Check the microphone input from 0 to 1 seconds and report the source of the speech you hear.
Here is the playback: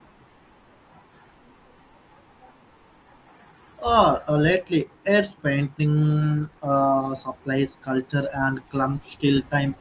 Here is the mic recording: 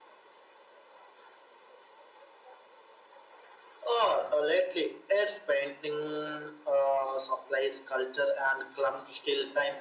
neither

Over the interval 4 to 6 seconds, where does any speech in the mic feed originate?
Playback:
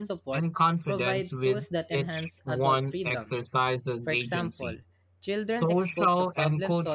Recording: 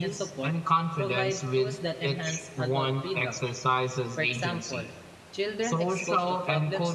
echo only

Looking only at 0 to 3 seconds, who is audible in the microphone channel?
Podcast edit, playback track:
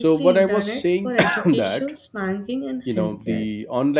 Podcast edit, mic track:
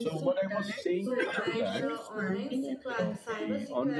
both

